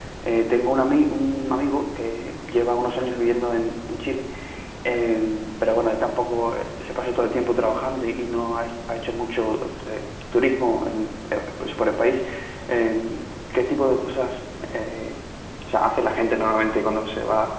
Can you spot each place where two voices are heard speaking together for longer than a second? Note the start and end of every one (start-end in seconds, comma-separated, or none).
none